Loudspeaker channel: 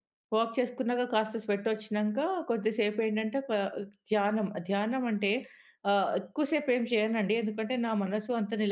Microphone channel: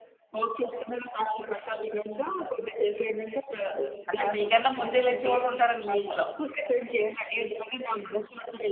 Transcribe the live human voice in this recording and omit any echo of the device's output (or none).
అంటే మీకన్నా ముందే లేచేవాళ్ళుంటారండి మీ ఇంట్లో.